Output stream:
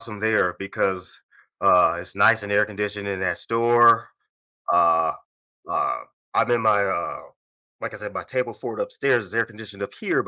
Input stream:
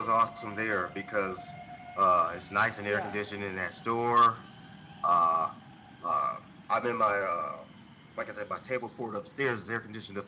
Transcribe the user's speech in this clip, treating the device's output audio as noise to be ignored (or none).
Yeah.